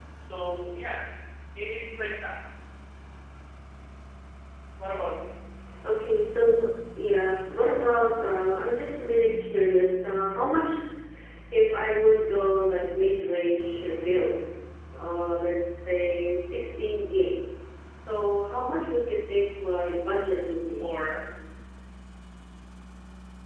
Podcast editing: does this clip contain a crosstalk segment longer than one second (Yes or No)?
No